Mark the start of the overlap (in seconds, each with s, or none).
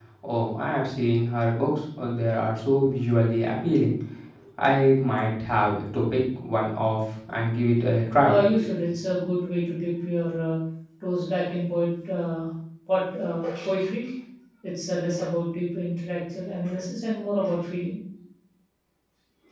none